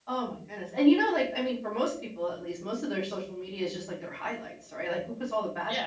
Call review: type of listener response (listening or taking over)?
taking over